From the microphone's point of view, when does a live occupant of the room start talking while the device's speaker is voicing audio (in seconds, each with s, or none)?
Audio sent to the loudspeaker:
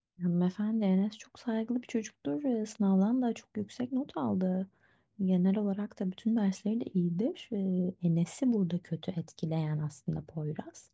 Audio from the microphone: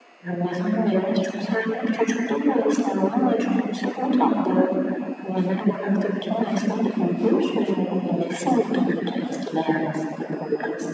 none